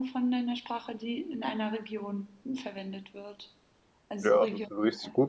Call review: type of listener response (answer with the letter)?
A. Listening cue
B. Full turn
B